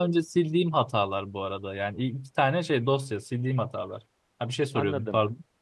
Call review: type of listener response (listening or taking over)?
taking over